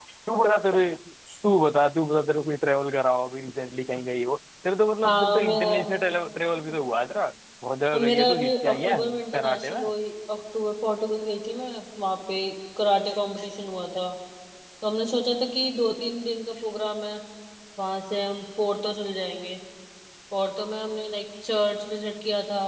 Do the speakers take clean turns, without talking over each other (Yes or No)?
No